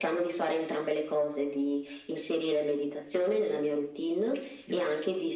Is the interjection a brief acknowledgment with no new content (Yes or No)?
Yes